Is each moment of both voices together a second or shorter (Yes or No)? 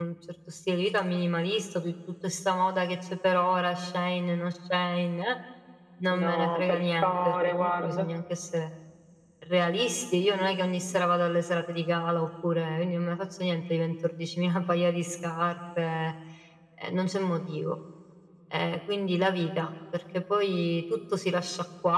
No